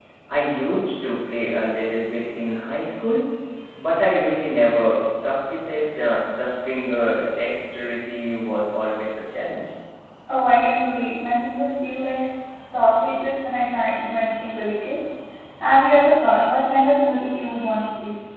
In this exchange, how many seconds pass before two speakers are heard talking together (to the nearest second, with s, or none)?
none